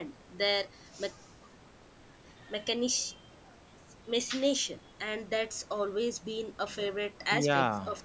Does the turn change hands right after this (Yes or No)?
Yes